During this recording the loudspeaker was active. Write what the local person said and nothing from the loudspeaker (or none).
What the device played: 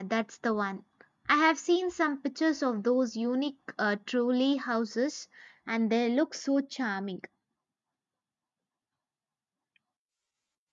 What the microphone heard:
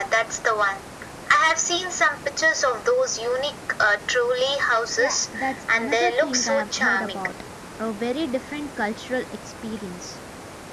Yeah, that's another thing I have heard about. A very different cultural experience.